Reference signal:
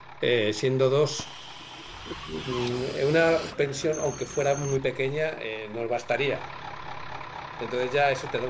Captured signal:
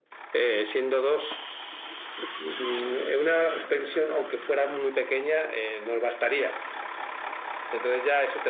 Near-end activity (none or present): none